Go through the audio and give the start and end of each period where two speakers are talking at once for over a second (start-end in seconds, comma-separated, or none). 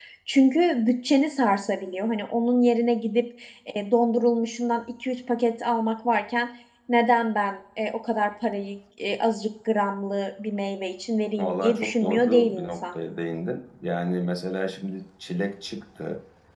11.4-12.8